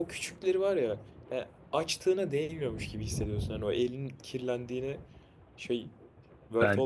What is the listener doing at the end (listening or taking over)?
taking over